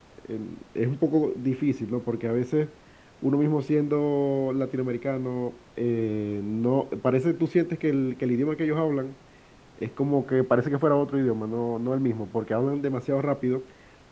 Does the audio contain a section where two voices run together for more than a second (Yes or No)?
No